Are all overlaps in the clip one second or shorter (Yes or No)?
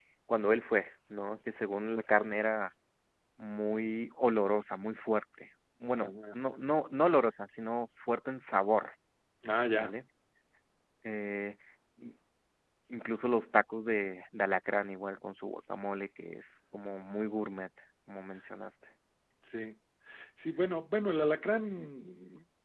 Yes